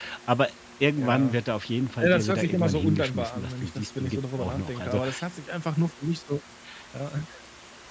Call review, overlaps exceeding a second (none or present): present